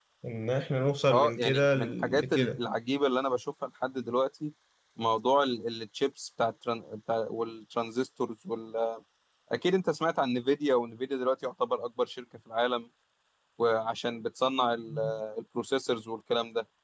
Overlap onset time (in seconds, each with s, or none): 1.1 s